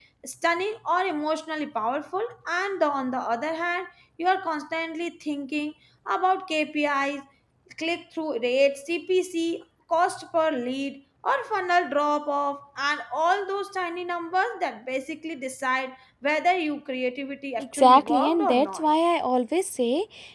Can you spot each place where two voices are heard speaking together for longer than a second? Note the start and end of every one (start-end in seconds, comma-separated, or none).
17.6-18.9